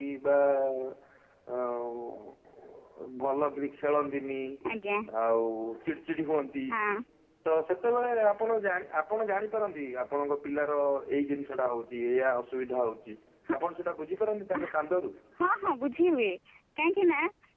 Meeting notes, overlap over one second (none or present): none